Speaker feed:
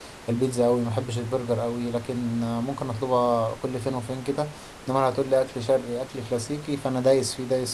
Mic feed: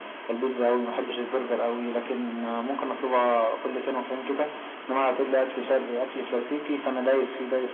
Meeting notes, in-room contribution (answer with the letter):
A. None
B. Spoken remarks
A